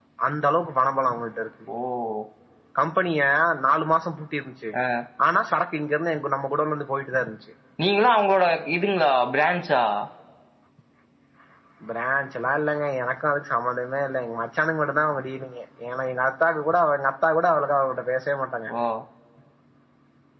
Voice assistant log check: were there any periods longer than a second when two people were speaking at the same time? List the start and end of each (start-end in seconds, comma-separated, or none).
none